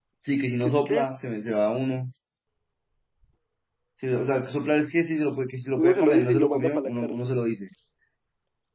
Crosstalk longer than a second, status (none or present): present